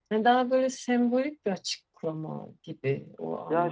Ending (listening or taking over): taking over